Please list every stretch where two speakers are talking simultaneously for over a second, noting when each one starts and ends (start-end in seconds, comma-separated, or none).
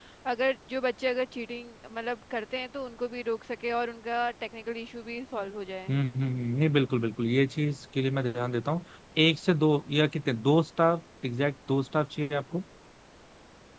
none